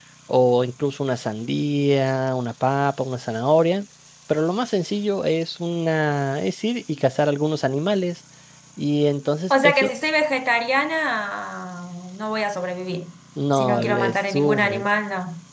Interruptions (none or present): present